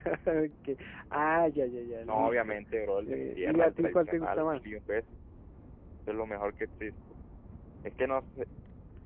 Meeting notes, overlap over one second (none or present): present